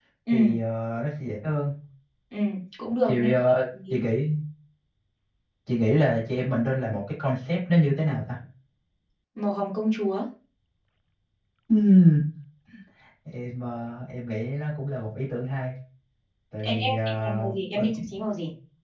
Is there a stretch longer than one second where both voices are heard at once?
Yes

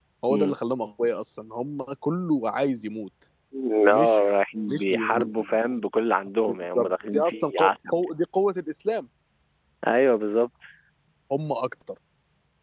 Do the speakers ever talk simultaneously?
Yes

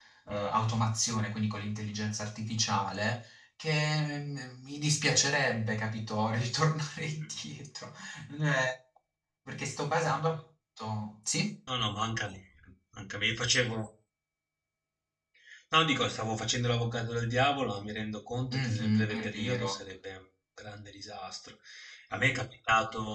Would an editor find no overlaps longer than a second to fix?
No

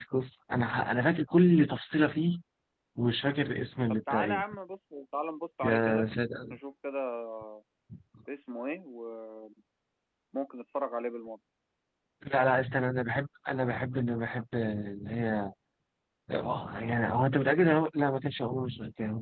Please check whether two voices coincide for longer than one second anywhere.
No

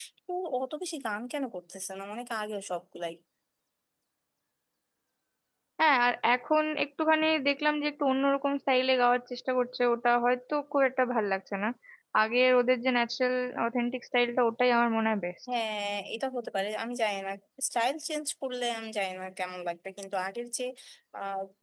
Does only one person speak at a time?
Yes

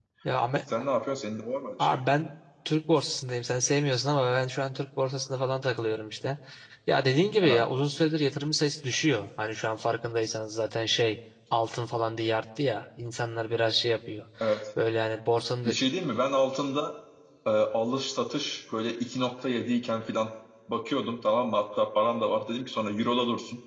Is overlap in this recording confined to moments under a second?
Yes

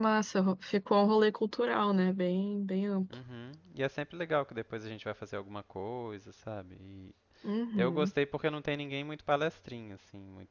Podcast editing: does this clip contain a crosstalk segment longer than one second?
No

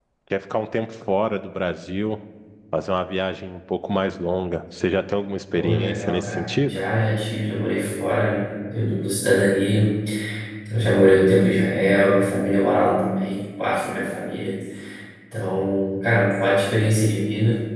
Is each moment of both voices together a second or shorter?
No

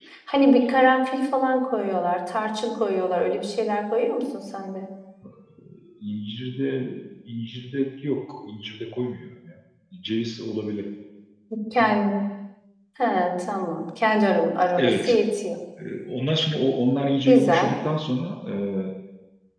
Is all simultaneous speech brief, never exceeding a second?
Yes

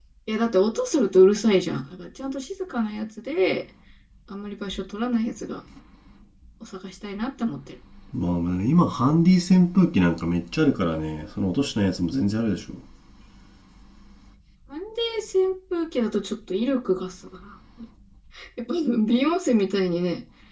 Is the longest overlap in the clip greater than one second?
No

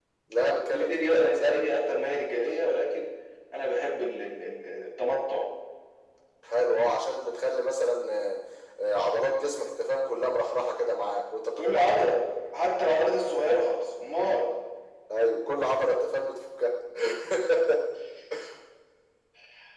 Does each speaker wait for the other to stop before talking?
No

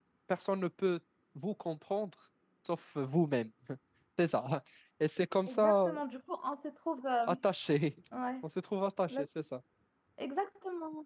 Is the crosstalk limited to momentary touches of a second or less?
Yes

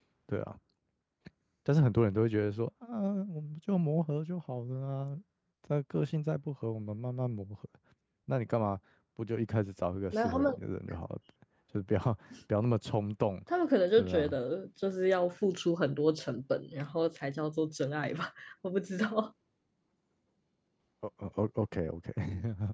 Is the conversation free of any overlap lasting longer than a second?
Yes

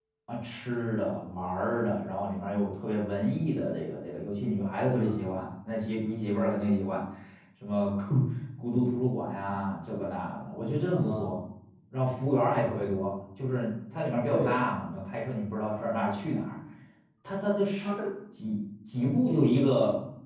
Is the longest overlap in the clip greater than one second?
No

